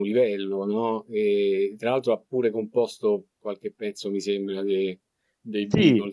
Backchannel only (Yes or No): No